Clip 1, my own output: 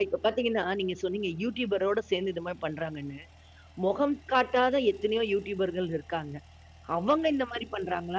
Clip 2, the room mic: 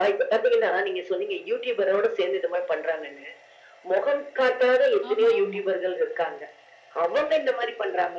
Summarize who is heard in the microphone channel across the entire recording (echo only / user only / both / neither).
both